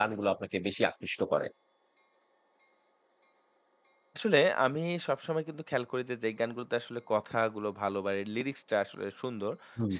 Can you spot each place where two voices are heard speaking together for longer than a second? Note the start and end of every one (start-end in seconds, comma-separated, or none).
none